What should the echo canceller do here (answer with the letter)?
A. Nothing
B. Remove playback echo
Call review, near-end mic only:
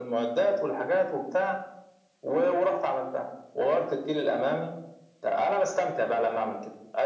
B